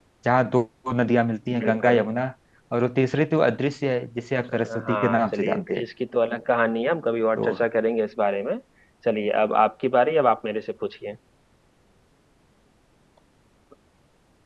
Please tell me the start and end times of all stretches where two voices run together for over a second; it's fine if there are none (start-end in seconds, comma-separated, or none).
4.5-5.8